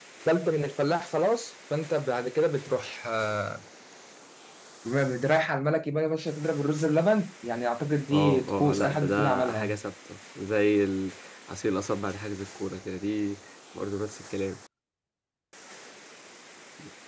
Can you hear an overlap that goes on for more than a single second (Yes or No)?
Yes